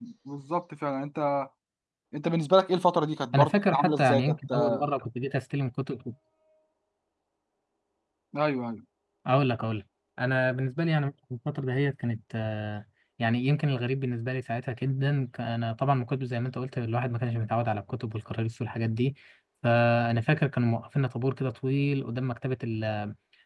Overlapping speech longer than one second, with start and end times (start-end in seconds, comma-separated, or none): 3.4-4.9